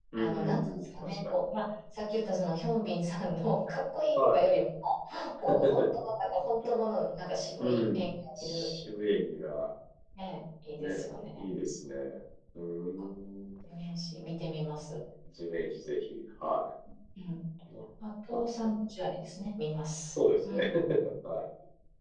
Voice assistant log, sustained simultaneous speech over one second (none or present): present